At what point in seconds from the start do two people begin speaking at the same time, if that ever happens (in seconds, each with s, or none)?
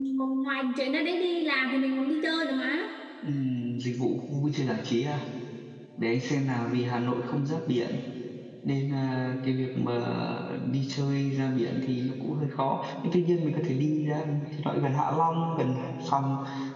none